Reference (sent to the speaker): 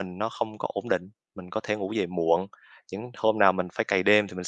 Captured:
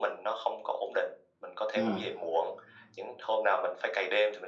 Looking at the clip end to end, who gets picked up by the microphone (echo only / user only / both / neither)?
both